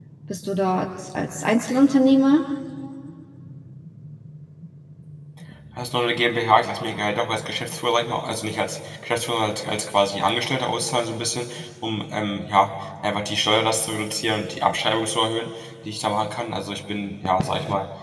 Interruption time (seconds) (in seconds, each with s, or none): none